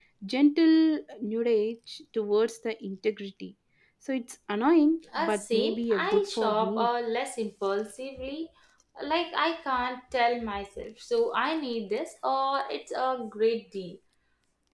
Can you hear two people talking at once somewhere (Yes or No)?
Yes